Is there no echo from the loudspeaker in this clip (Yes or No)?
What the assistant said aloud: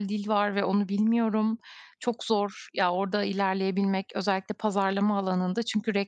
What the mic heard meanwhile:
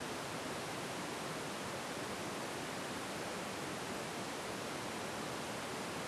Yes